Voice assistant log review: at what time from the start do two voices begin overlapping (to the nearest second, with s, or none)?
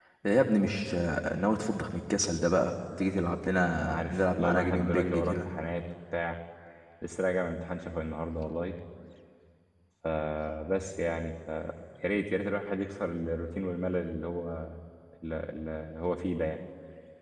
4 s